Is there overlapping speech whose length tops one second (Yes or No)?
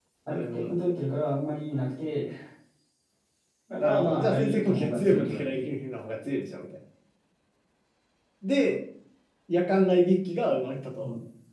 Yes